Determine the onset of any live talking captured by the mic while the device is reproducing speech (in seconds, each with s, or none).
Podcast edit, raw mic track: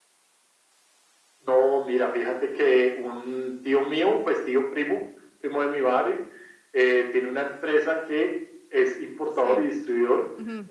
9.3 s